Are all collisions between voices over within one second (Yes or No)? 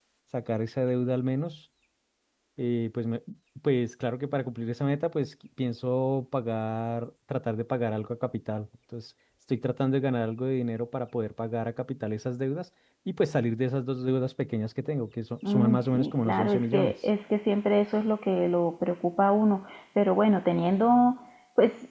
No